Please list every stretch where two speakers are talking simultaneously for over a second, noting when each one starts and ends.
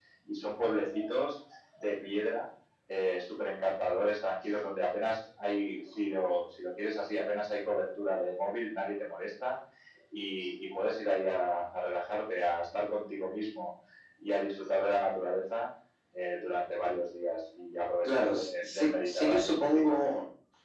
18.0-19.9

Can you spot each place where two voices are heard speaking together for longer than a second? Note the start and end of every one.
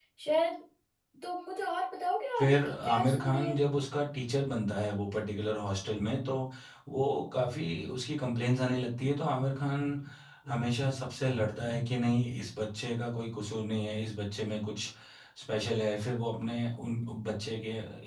2.4-3.6

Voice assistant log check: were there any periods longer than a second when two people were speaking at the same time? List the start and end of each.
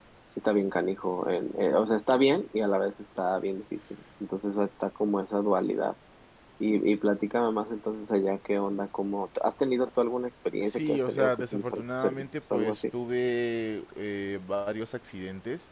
10.6-12.8

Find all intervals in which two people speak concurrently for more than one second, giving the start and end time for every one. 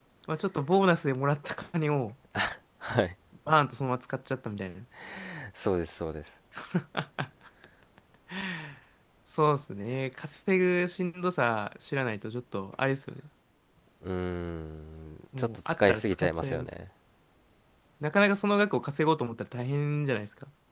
15.4-16.7

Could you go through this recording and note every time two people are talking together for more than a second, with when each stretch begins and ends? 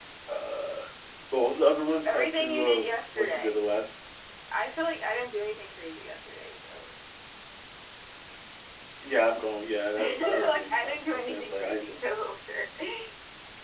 2.0-3.6, 10.0-12.0

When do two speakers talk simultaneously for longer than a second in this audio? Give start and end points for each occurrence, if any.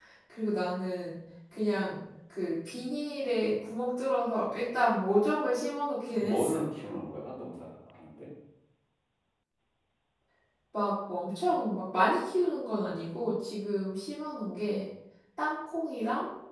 none

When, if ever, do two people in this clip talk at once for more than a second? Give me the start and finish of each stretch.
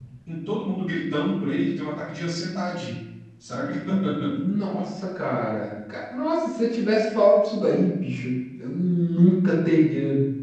none

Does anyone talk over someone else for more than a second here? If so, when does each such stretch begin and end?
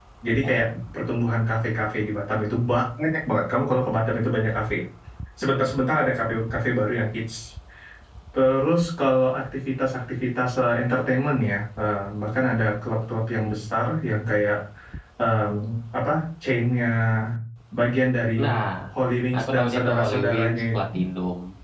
19.4-20.8

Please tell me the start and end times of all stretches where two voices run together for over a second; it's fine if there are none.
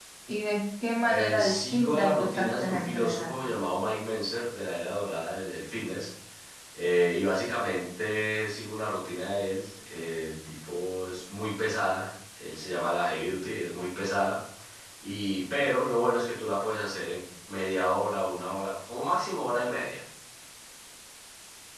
1.0-3.3

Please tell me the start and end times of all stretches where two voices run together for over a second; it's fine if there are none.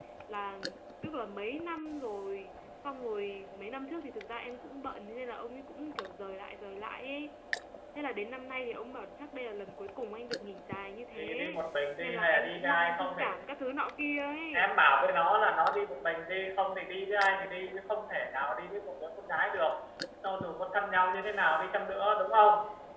12.0-13.3

